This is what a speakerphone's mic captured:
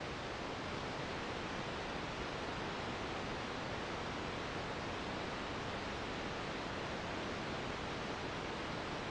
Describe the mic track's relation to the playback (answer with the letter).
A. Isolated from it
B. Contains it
A